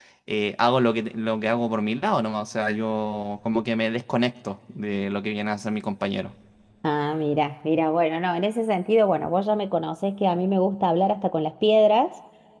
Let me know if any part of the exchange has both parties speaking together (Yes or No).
No